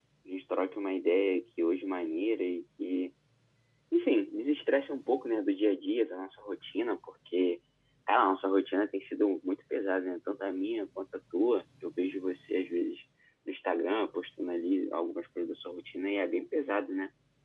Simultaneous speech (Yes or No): No